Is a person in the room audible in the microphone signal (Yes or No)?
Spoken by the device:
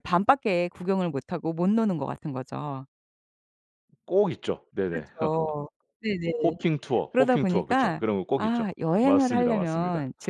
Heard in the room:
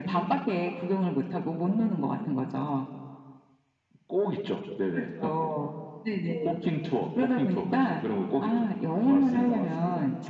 No